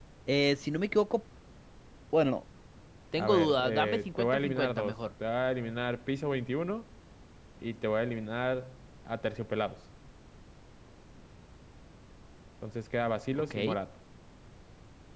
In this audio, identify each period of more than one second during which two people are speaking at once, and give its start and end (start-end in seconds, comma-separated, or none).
3.2-5.0